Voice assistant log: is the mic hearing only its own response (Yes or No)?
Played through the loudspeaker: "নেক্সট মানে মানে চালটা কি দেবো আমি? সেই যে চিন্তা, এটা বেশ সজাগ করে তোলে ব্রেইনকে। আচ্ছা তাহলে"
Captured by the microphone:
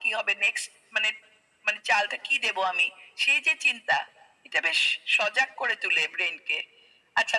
Yes